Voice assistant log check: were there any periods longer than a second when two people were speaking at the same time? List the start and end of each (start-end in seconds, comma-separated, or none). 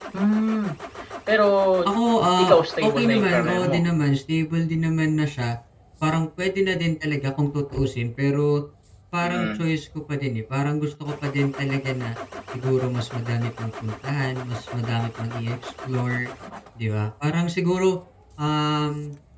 2.4-3.8